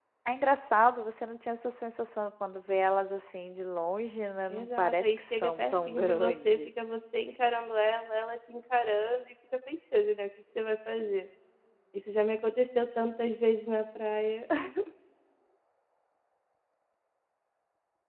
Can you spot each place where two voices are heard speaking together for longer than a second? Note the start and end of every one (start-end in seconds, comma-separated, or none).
4.5-6.7